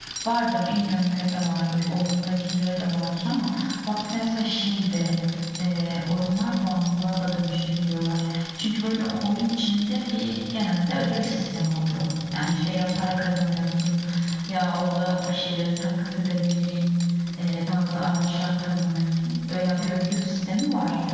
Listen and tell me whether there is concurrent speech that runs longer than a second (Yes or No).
No